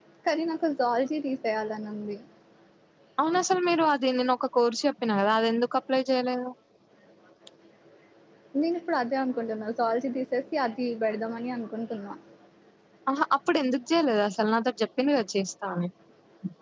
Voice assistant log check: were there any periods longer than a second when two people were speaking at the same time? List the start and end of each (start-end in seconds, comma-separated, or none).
none